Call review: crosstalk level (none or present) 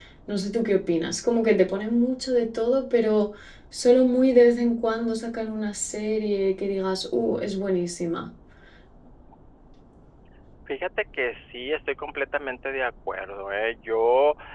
none